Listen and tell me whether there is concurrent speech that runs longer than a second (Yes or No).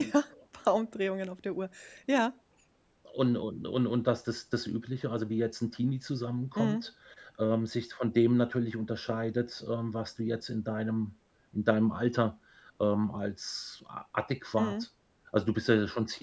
No